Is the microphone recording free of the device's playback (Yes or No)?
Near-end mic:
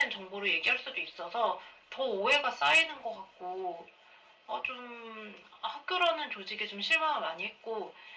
No